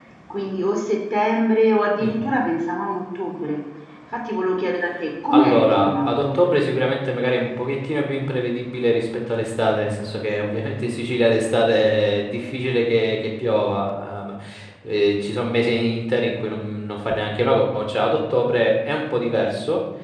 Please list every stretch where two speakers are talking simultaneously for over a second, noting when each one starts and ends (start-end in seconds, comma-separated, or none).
5.3-6.7